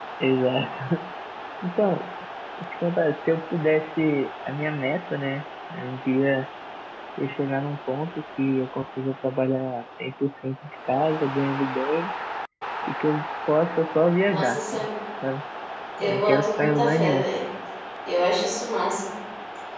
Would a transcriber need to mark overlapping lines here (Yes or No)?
Yes